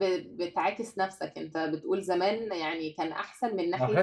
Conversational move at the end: taking over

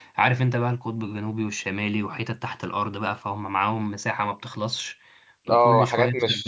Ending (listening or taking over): taking over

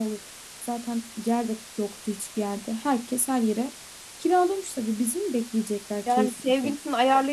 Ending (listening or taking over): taking over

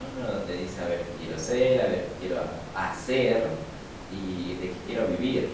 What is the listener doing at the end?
listening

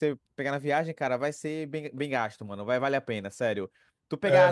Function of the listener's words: listening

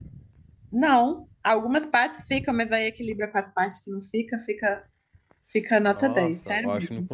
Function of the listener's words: taking over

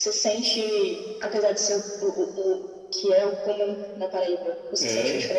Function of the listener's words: listening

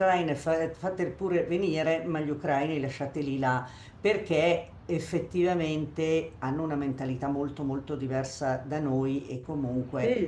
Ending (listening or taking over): listening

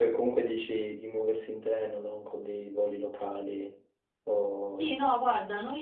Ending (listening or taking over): taking over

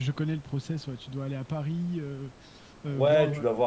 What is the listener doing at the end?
taking over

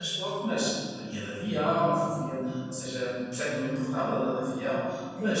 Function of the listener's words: listening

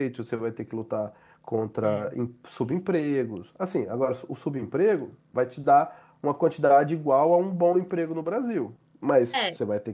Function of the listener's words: listening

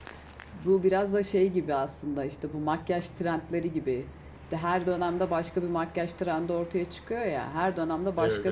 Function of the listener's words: listening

